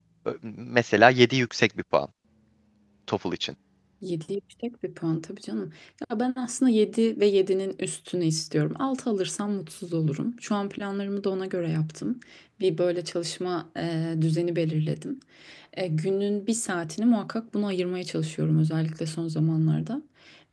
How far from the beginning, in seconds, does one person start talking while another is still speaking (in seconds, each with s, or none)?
none